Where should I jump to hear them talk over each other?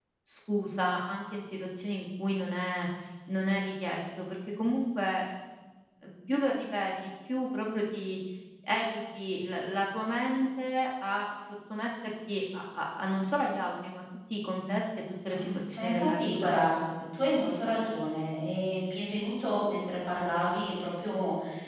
15.3 s

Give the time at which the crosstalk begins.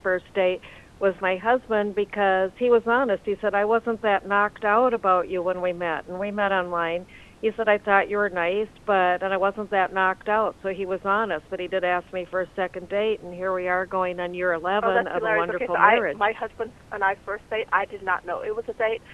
14.8 s

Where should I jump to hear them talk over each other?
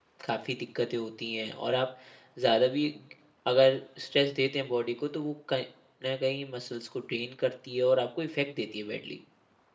none

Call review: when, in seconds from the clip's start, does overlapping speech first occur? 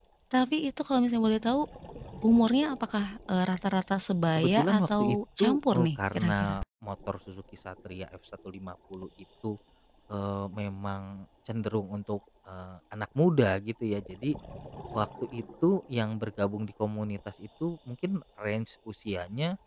4.4 s

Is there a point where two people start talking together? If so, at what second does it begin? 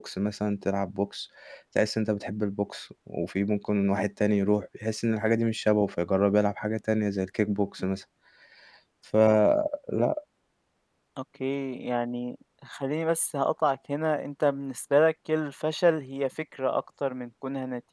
none

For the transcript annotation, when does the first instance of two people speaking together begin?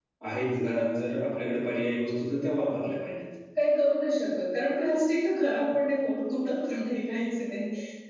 none

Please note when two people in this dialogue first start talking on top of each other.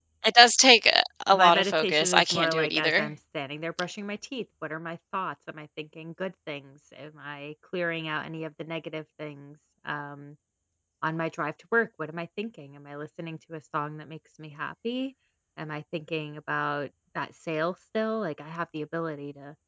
1.3 s

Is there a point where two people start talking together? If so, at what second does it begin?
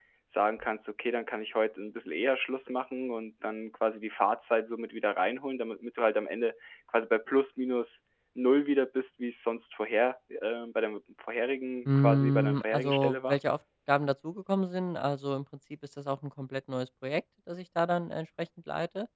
11.8 s

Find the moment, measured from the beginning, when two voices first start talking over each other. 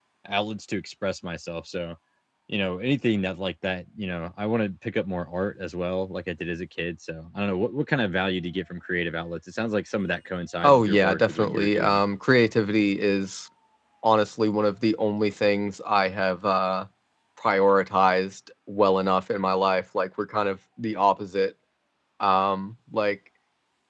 10.6 s

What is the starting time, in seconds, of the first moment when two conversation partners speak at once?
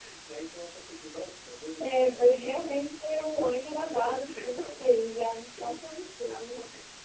1.8 s

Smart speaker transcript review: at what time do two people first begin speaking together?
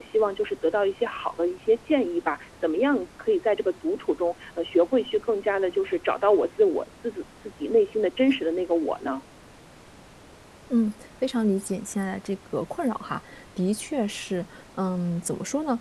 none

